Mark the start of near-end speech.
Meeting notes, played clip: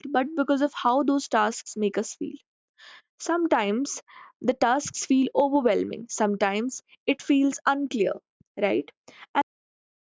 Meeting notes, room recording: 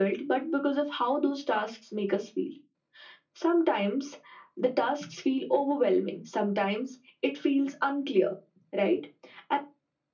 none

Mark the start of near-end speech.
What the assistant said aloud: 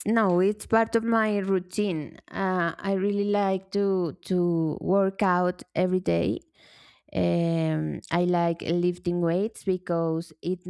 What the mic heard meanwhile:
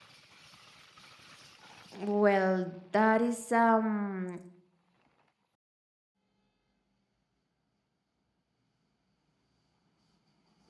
1.9 s

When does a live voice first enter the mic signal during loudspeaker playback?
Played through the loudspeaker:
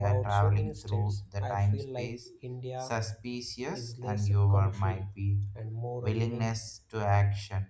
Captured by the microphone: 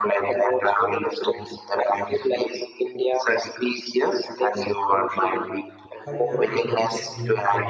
6.0 s

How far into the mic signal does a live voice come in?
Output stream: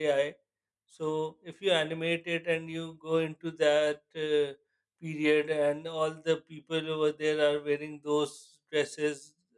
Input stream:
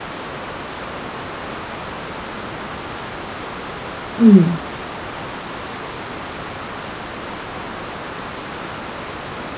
4.2 s

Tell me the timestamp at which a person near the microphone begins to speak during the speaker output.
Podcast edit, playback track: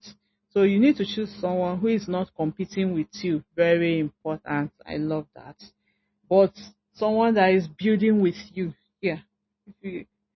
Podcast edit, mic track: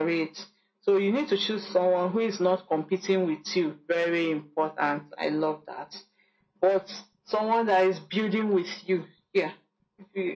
none

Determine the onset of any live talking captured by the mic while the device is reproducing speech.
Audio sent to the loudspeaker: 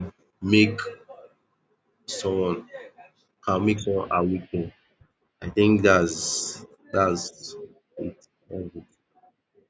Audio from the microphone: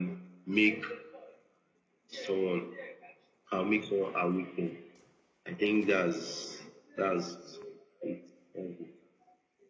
none

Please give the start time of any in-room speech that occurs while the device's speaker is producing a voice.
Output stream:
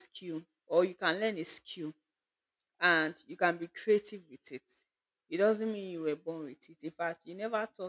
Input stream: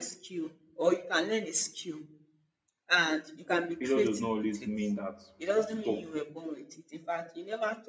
3.8 s

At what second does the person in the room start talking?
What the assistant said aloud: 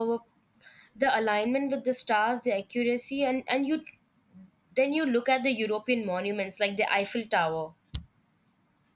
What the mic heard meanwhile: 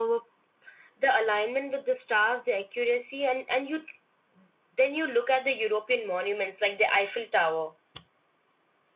none

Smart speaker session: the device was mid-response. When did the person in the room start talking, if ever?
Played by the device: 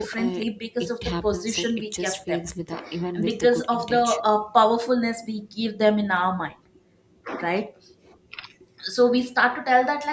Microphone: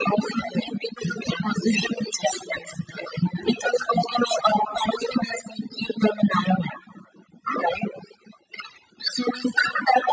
none

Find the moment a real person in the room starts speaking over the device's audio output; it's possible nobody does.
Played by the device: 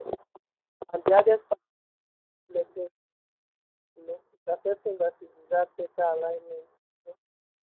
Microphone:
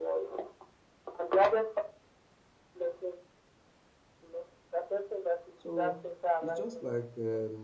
5.5 s

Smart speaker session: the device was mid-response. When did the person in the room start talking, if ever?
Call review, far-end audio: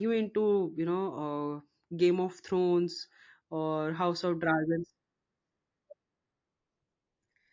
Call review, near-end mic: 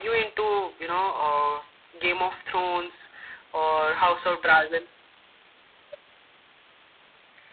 none

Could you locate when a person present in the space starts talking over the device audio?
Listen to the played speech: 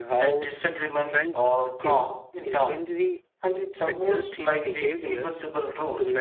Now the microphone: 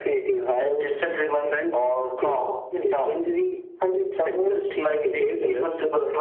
none

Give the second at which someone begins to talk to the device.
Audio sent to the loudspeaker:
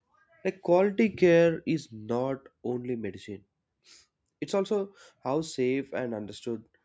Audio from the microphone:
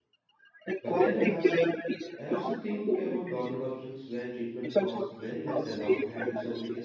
0.8 s

